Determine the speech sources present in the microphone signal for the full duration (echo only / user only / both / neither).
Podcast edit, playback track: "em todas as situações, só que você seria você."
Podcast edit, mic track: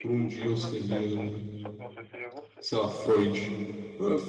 both